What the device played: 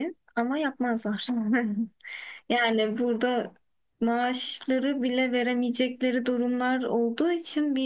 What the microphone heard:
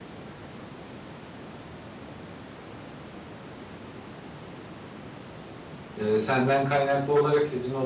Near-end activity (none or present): present